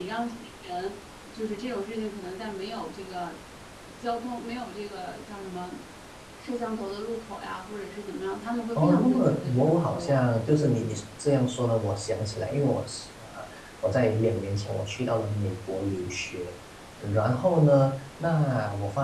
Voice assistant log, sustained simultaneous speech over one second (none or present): present